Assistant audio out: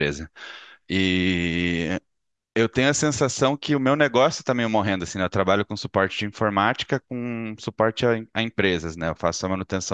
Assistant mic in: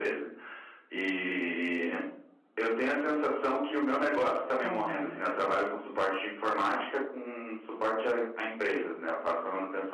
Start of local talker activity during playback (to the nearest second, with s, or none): 5 s